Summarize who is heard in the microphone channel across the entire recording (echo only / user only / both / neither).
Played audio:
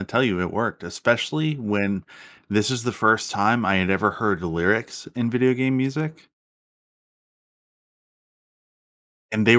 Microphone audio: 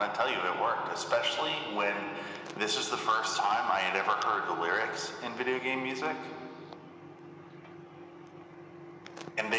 echo only